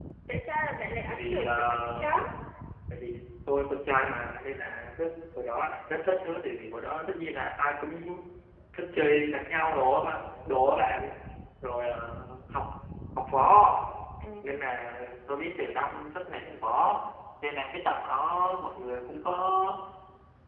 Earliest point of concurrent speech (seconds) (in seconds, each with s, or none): 1.1 s